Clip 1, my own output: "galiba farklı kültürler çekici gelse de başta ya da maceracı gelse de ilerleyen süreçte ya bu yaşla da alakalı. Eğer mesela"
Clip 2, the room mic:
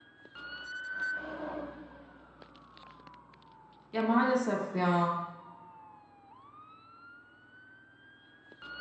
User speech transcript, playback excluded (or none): Ya maalesef ya.